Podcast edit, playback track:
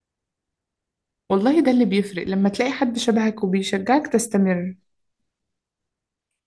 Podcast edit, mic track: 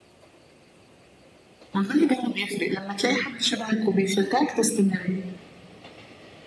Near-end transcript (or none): none